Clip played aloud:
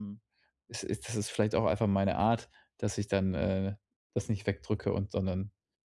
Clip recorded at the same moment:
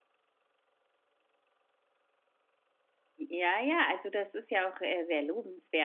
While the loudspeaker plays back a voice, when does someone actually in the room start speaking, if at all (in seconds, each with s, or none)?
3.2 s